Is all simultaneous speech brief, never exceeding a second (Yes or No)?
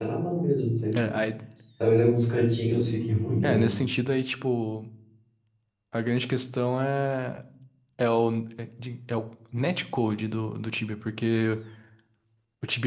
Yes